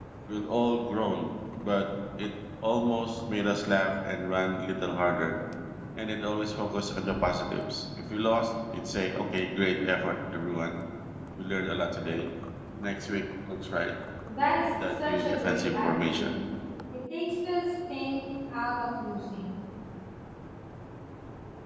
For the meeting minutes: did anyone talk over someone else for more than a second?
Yes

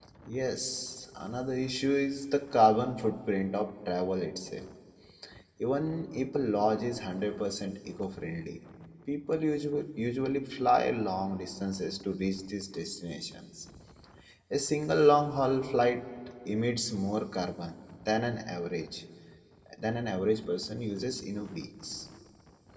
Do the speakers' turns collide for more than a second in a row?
No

